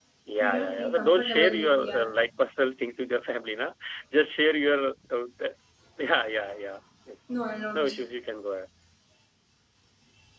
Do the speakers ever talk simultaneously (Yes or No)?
Yes